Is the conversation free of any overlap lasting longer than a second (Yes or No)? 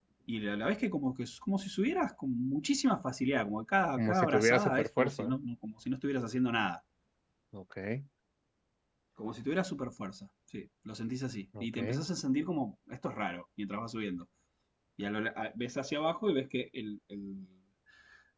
No